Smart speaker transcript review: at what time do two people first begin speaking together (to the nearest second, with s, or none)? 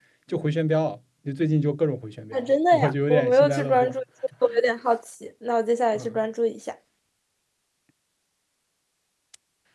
2 s